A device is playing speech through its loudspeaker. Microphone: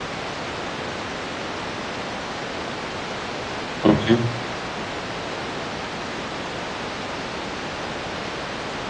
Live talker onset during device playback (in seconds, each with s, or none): 3.8 s